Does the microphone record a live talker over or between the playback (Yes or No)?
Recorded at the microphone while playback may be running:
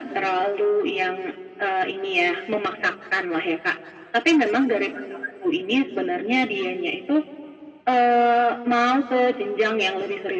No